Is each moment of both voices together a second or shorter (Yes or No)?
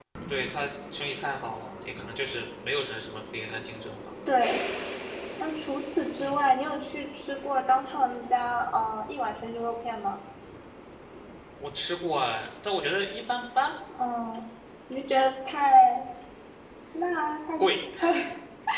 Yes